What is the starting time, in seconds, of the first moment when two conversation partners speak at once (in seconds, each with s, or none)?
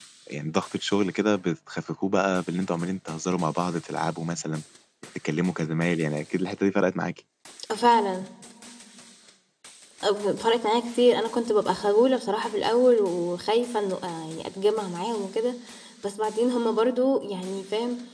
none